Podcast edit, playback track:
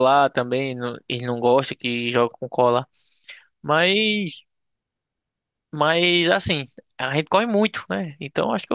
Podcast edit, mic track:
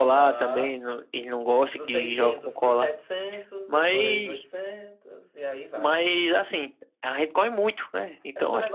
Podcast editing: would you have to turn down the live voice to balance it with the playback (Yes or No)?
No